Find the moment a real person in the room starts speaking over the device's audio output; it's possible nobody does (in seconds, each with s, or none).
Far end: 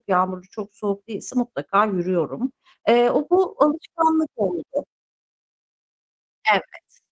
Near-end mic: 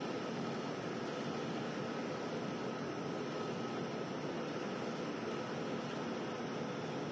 none